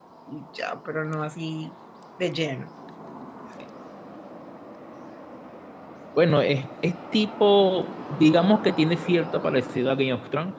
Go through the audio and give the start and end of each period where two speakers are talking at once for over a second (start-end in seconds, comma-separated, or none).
none